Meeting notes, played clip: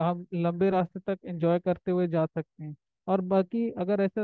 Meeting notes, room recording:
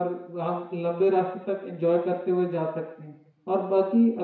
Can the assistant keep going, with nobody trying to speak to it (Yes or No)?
Yes